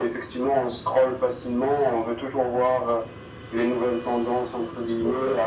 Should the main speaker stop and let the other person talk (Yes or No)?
No